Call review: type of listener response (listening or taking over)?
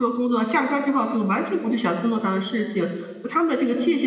listening